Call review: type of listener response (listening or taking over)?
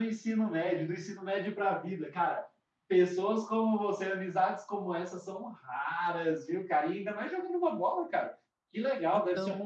listening